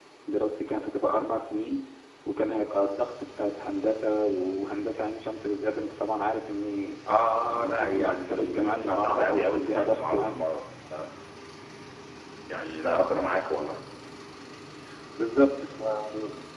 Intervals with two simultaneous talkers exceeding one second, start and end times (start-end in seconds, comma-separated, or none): 7.5-10.3